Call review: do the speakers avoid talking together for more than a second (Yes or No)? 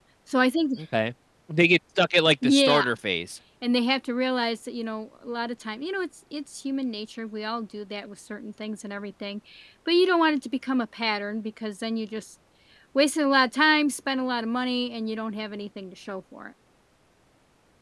Yes